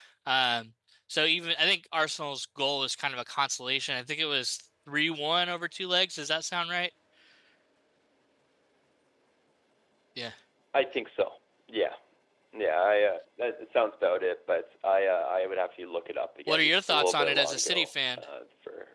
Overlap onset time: 16 s

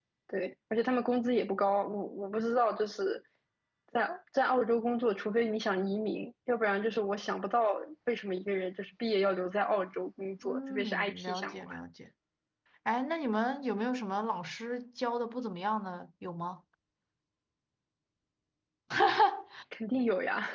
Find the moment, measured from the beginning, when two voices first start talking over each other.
10 s

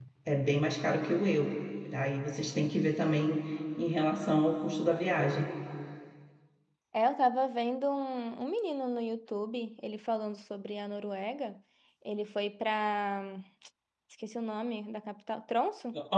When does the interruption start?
none

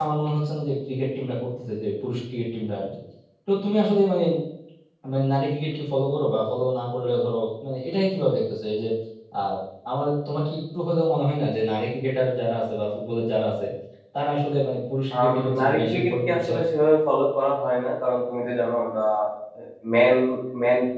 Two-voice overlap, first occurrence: 15 s

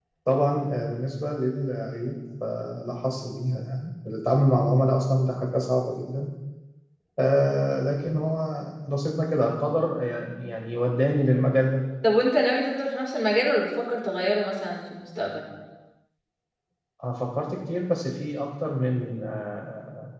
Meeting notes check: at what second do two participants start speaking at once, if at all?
none

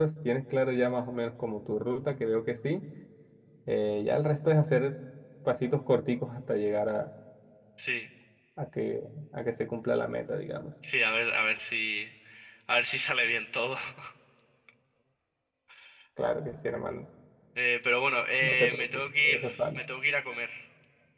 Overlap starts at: 18 s

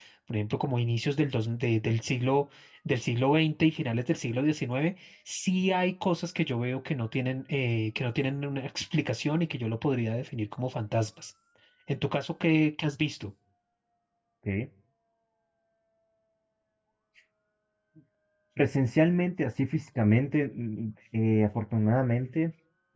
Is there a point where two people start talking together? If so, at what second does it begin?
none

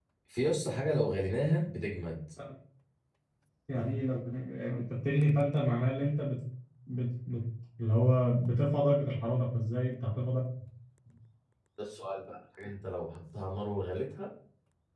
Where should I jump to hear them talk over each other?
none

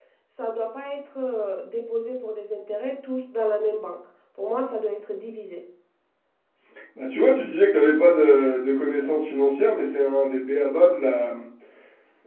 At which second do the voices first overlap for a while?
none

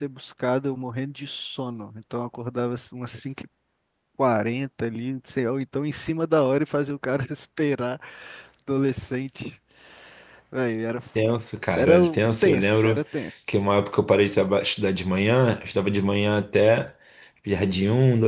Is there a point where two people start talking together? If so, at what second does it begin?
12 s

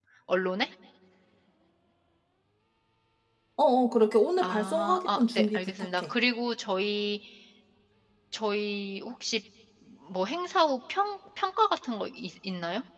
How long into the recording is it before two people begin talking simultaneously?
4 s

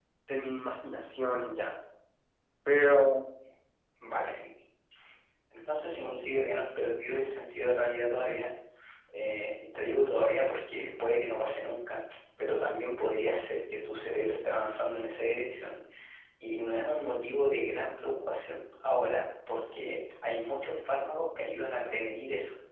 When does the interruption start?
none

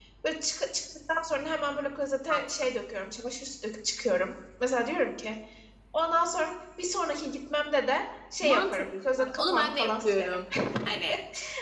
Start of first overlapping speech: 8 s

